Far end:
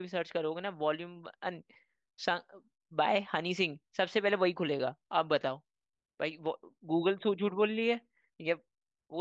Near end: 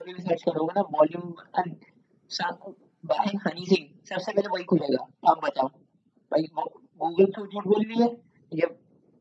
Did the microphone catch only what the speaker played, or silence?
Yes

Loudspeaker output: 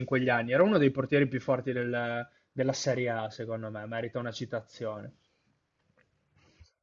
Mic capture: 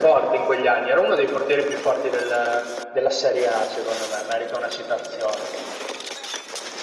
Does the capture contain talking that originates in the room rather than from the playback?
No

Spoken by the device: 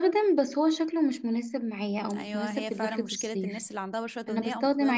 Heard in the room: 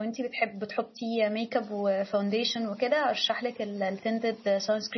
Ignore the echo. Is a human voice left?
Yes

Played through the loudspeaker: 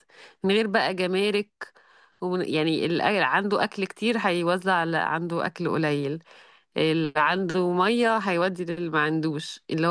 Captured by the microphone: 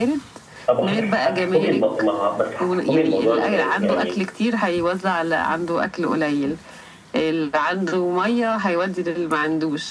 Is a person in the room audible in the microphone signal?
Yes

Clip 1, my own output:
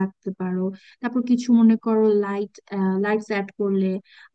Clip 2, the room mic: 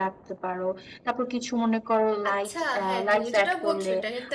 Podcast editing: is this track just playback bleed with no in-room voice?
No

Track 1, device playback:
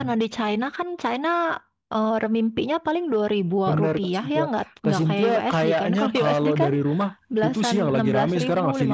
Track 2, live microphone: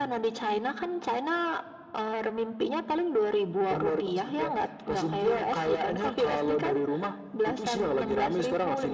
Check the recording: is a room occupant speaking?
No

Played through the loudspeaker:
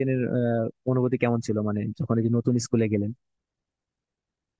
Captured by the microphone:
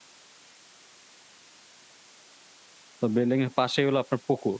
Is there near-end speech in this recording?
Yes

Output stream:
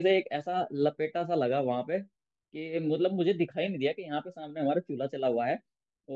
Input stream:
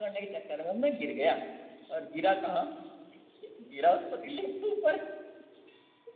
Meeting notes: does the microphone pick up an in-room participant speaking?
Yes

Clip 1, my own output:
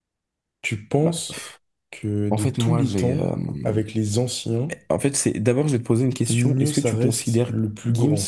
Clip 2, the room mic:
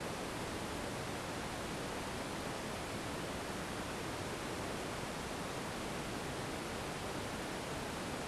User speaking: No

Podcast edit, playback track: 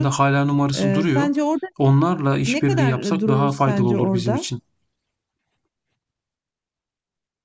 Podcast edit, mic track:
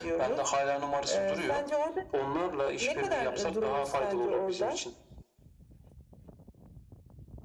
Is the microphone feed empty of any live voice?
Yes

